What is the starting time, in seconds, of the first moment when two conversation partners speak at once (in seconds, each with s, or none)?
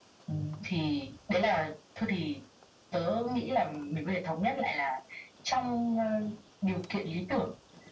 none